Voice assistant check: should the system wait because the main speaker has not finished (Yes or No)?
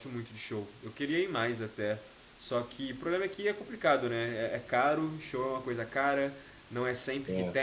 Yes